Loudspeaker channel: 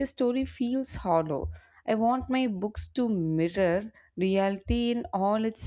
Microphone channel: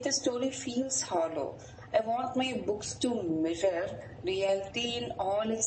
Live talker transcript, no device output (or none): none